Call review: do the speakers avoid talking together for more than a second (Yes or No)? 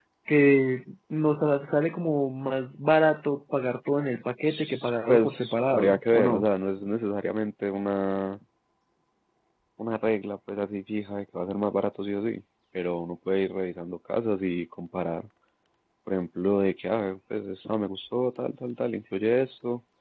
No